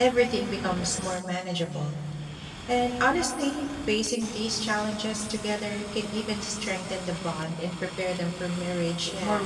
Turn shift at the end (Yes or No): Yes